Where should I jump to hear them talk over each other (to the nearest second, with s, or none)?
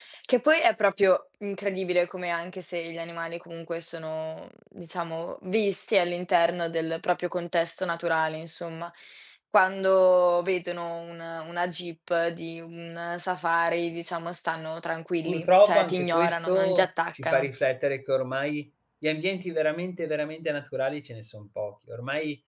15 s